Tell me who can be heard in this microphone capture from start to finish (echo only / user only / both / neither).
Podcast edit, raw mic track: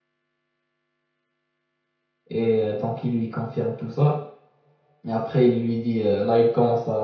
user only